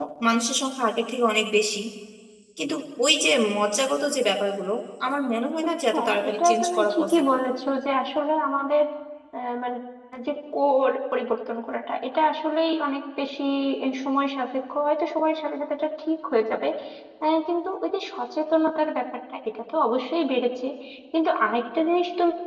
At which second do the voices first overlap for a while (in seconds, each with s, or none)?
5.9 s